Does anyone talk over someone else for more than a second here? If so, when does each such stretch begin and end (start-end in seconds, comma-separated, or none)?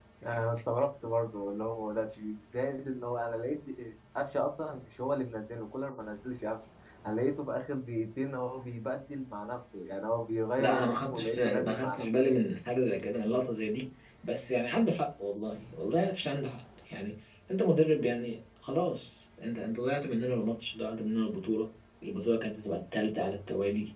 10.6-12.2